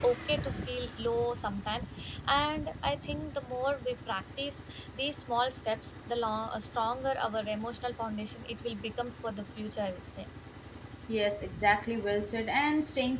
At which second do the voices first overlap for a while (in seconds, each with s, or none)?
none